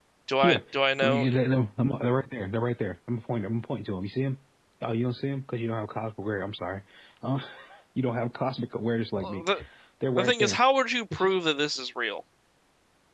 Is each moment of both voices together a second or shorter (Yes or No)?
Yes